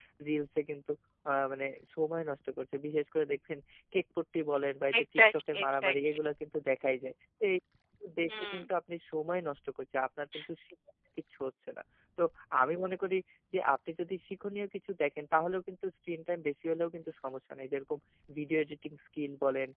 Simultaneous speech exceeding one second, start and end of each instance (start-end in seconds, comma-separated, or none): 5.0-6.2